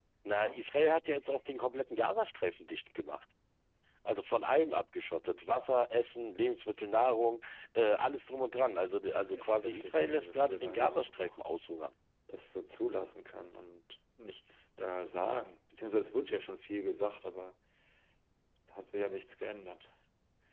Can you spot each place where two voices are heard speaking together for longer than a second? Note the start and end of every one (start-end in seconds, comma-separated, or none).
9.1-11.3